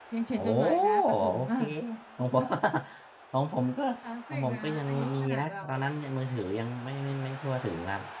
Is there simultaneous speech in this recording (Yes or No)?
Yes